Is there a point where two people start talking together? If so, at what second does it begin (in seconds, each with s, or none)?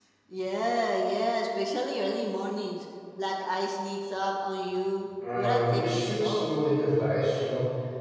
5.2 s